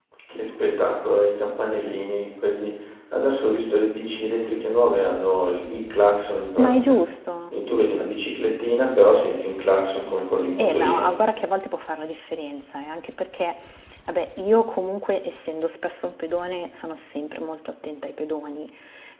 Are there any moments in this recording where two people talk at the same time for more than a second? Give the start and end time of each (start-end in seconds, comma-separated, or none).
none